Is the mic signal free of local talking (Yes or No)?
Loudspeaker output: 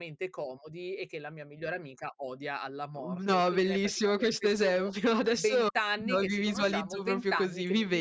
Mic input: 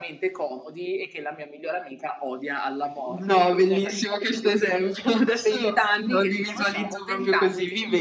Yes